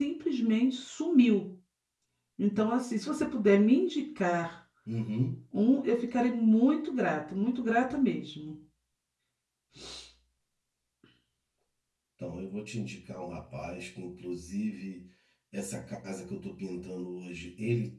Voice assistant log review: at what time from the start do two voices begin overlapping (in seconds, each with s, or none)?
none